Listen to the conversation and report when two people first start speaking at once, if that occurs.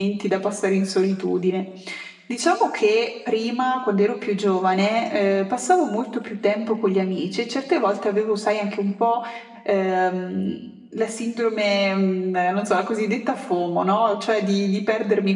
none

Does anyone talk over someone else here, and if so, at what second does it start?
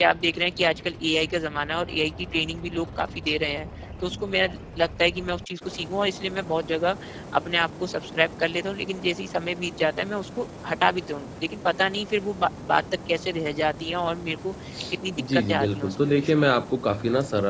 15.2 s

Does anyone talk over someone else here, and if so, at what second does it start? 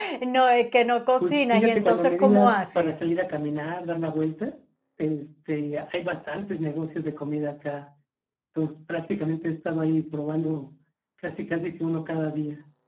1.2 s

